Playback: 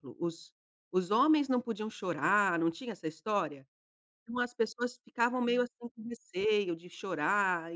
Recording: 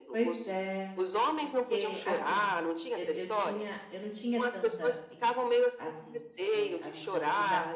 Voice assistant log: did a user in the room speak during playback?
Yes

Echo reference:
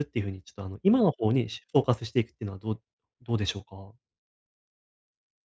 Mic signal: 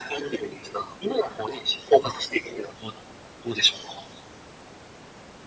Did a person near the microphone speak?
No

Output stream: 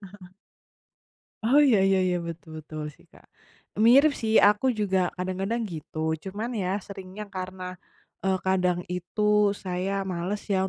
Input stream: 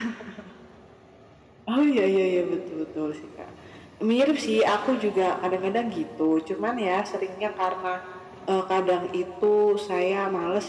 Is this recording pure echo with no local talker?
Yes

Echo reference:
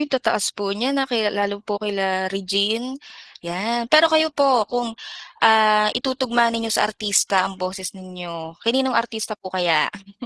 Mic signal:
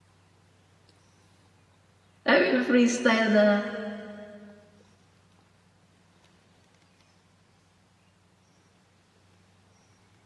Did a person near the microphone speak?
Yes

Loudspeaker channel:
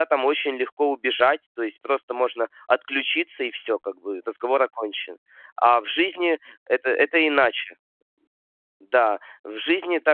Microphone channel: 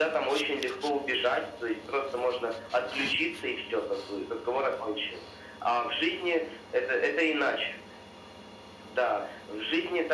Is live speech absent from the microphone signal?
Yes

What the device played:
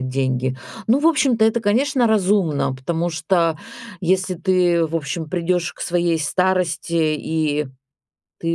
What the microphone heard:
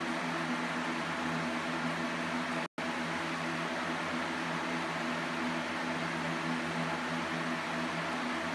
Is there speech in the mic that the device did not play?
No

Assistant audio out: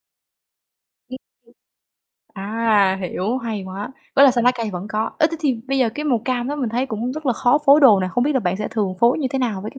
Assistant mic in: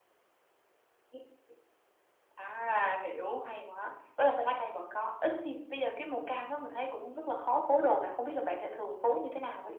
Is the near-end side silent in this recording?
Yes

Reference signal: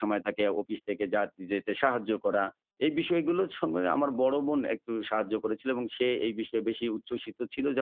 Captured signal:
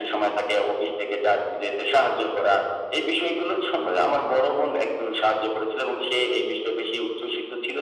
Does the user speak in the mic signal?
No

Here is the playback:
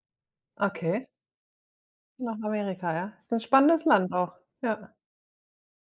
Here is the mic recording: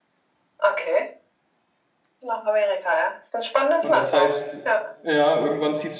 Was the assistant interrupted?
Yes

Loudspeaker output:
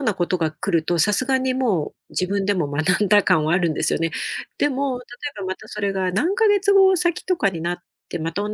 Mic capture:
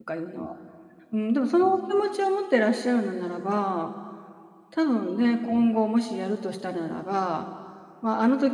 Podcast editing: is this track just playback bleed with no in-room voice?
No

